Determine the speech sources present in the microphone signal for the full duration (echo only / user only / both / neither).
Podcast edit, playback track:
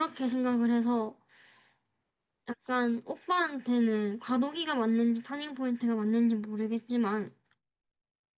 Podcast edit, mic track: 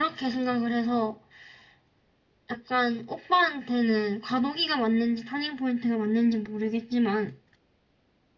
echo only